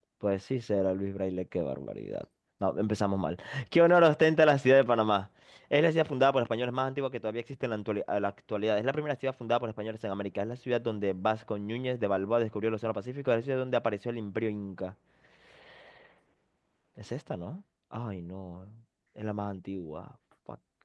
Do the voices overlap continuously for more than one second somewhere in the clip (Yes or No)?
No